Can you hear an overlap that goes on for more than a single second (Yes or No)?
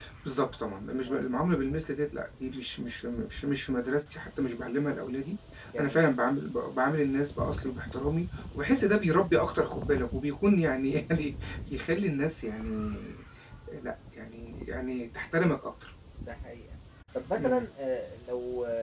No